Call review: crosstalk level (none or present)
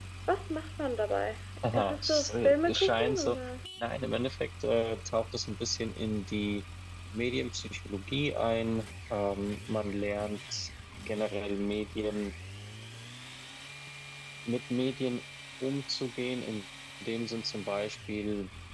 present